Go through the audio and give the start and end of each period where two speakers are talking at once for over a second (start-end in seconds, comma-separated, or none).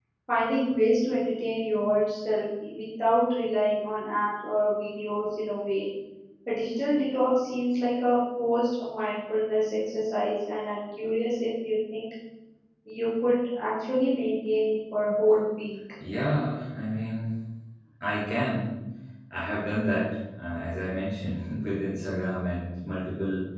none